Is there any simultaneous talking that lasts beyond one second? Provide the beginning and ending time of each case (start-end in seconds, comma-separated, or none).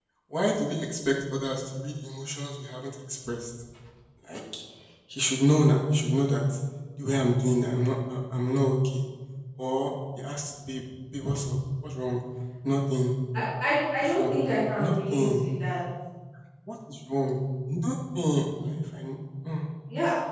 14.0-15.4